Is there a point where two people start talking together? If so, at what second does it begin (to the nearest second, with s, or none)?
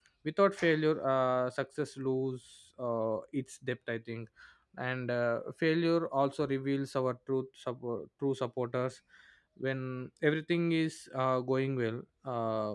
none